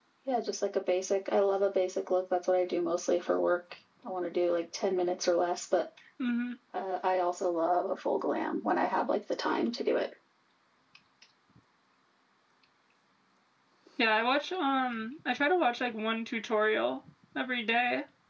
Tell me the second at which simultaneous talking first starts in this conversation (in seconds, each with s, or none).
none